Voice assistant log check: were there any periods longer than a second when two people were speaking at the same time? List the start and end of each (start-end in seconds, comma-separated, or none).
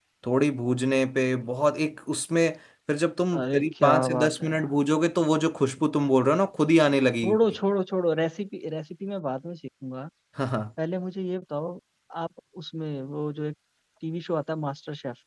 3.4-4.7